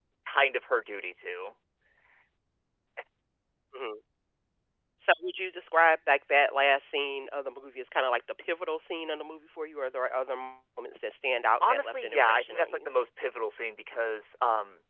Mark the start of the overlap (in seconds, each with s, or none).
11.6 s